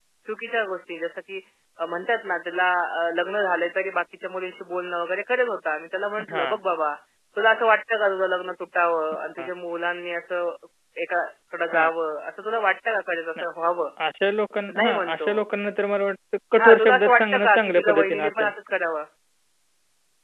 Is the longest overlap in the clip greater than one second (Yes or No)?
Yes